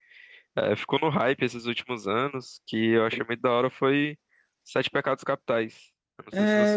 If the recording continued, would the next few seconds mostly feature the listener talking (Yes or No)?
Yes